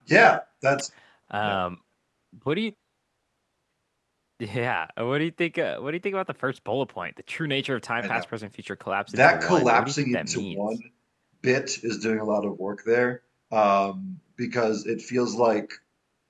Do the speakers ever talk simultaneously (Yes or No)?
Yes